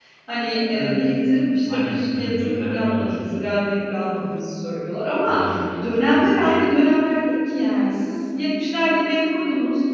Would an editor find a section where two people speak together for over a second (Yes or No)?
Yes